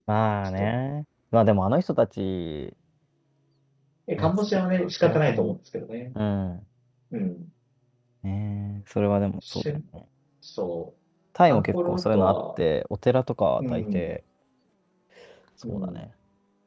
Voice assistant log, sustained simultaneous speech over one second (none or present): present